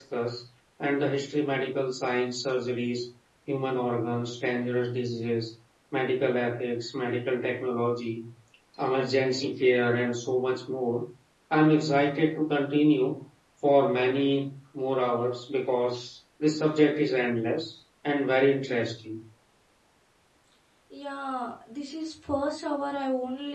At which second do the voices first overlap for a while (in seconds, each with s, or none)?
none